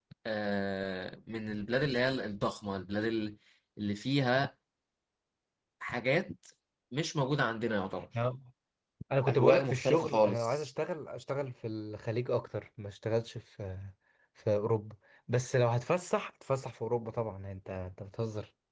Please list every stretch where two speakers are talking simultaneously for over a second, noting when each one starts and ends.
9.3-10.7

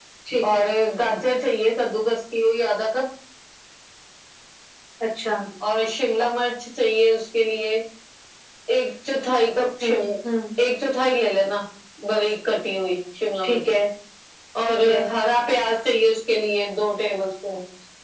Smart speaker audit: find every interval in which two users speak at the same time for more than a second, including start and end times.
none

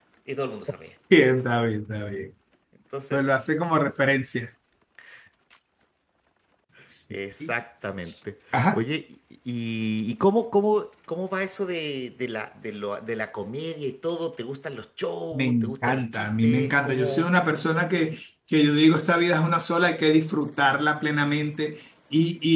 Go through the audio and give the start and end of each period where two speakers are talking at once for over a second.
15.3-17.3

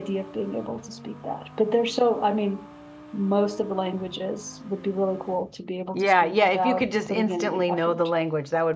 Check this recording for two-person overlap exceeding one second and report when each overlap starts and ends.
5.9-8.0

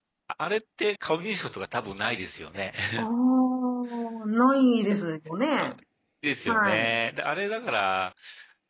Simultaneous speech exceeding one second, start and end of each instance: none

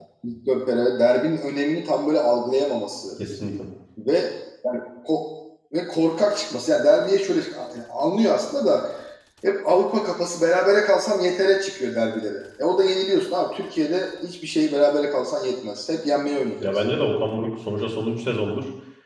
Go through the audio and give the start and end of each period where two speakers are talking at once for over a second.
none

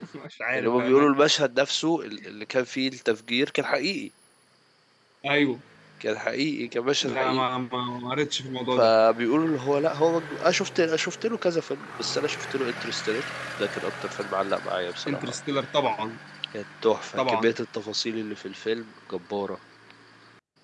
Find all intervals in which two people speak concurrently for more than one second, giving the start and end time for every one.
none

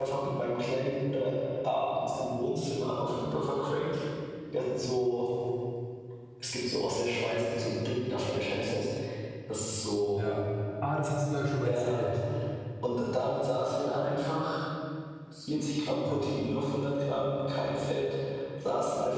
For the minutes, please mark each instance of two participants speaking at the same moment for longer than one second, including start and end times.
none

